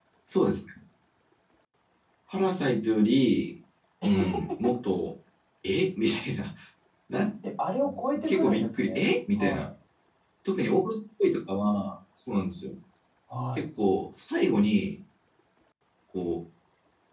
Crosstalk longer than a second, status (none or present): present